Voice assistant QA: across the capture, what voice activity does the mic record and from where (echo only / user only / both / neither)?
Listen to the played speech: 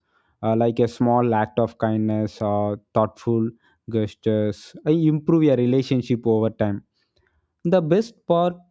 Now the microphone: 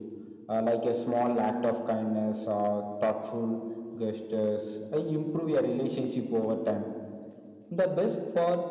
echo only